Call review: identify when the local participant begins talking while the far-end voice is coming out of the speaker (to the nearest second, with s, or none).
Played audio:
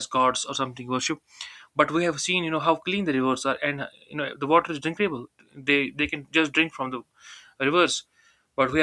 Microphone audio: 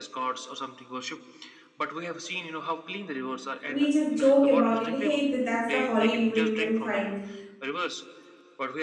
4 s